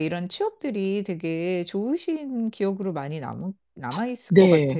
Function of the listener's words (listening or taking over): taking over